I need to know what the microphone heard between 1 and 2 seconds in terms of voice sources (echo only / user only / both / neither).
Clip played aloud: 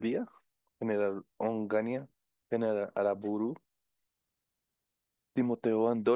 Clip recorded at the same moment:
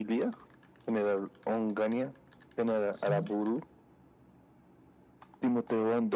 echo only